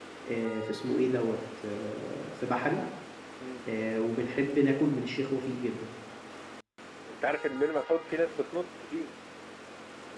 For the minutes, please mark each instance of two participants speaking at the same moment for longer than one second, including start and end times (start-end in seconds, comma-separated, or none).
none